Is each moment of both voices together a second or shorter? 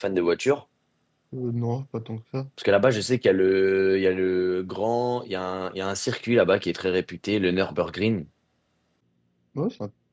Yes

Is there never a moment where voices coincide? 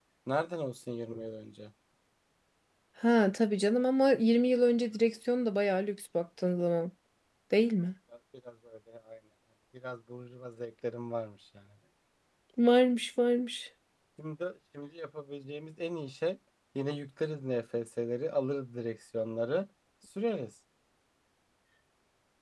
Yes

